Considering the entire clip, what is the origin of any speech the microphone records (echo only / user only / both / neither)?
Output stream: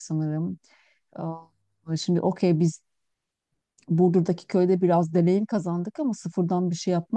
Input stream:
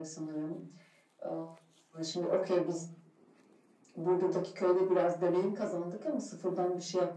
echo only